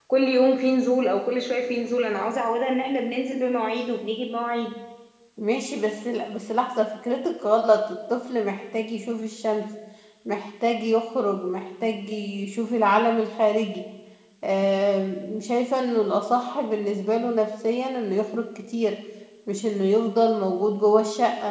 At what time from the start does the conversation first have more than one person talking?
none

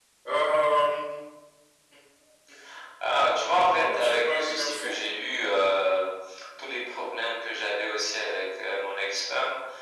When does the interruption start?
3.8 s

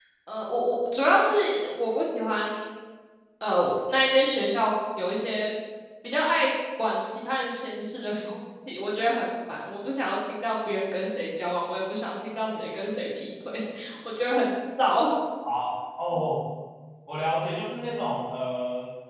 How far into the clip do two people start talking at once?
none

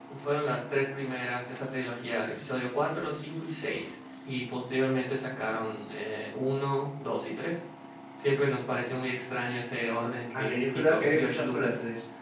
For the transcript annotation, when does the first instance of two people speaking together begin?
10.3 s

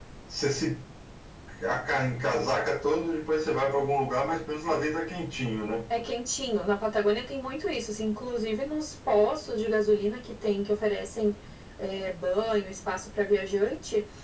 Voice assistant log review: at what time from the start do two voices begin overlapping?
none

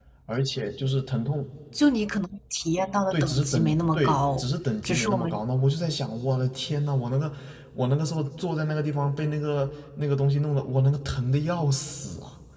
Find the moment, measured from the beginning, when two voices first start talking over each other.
3.1 s

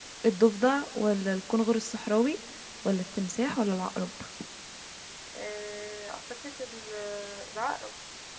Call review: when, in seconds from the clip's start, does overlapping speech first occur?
none

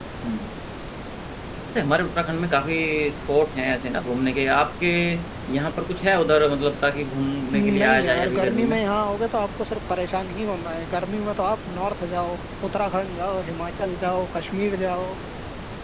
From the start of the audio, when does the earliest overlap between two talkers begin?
7.5 s

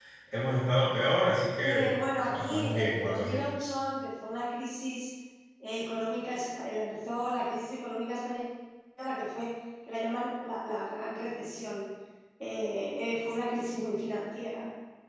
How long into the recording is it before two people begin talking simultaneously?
1.6 s

